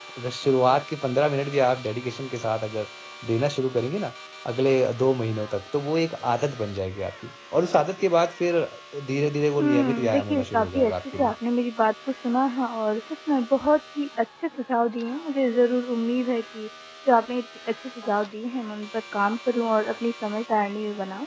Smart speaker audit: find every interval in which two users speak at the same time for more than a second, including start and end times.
9.6-11.3

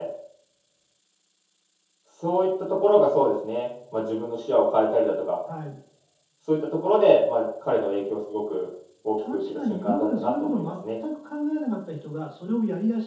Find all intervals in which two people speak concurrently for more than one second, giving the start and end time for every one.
9.2-11.0

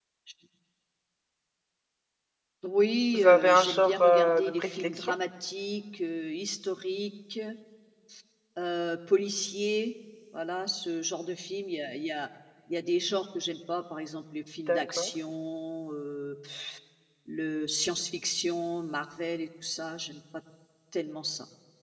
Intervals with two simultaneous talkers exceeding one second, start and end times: 3.1-5.1

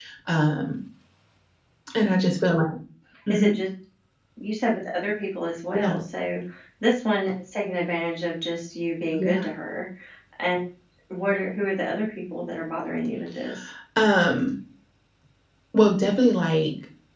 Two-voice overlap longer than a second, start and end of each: none

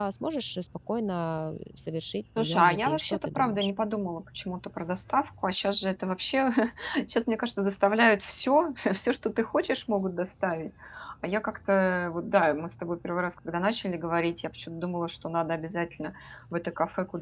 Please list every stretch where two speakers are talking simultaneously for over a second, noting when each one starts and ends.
2.4-3.7

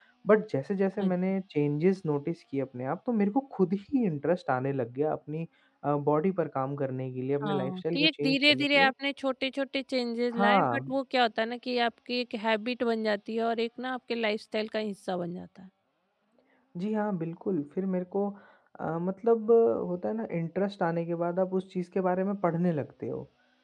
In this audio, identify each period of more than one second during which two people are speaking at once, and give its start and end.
7.4-8.9

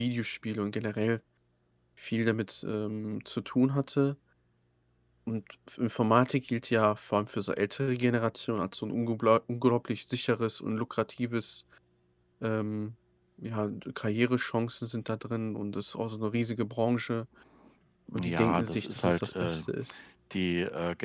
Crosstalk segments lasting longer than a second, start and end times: 18.2-19.6

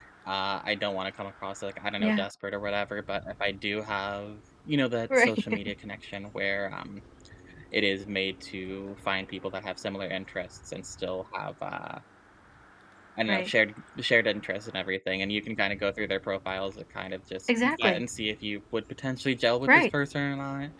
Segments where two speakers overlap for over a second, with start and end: none

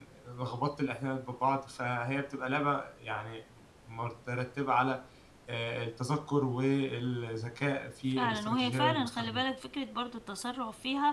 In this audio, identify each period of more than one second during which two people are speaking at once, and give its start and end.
8.1-9.5

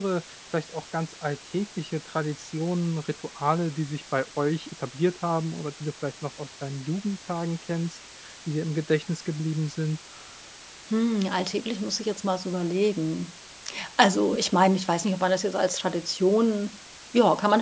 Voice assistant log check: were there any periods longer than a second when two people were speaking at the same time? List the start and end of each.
none

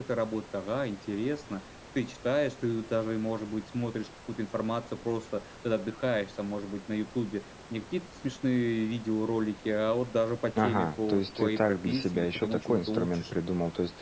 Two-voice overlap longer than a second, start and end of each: 10.6-13.2

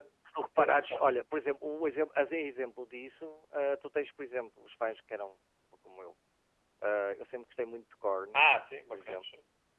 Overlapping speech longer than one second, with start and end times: none

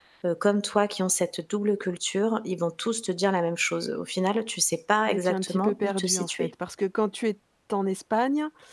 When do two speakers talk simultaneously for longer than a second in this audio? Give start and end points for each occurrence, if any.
5.1-6.5

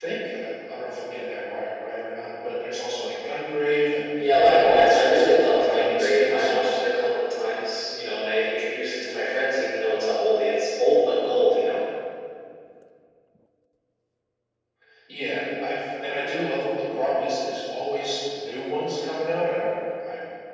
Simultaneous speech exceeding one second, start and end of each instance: 4.4-6.7

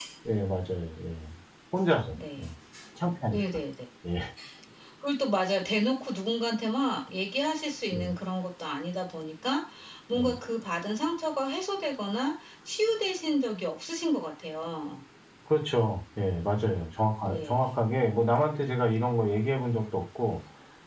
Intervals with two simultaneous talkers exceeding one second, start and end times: none

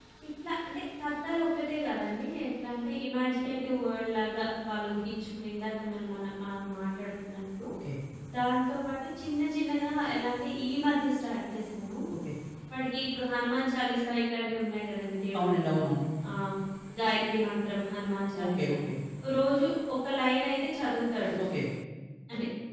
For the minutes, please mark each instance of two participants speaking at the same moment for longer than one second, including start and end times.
none

